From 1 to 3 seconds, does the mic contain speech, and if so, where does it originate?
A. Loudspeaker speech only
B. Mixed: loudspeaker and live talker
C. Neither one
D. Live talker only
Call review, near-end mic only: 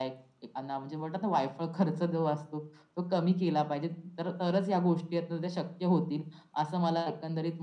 A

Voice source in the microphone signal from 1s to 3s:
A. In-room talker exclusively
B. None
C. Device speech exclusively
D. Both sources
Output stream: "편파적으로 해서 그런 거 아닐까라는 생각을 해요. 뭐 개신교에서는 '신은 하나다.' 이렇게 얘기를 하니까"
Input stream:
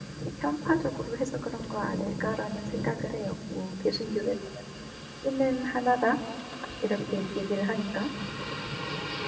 C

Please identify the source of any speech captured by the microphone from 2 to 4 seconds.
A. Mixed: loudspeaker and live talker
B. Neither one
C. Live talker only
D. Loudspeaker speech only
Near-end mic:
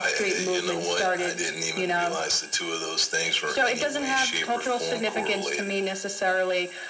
D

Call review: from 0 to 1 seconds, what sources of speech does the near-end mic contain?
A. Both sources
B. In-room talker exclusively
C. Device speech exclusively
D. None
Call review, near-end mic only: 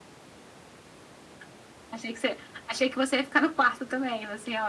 D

